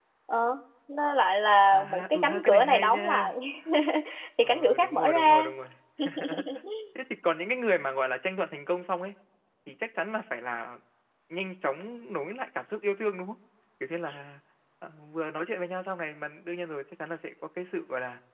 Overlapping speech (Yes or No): Yes